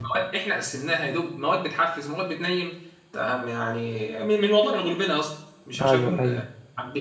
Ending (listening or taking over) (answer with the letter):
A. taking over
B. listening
B